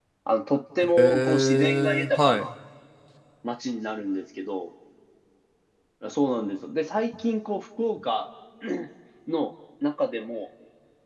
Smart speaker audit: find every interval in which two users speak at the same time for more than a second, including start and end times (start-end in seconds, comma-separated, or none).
0.8-2.5